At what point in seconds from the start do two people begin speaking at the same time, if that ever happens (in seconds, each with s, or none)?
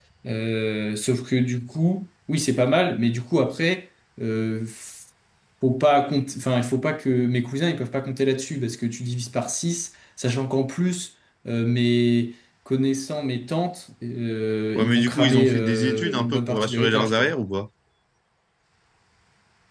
14.8 s